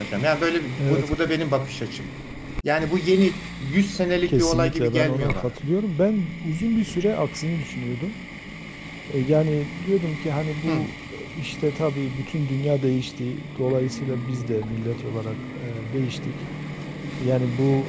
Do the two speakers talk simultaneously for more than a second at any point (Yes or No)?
Yes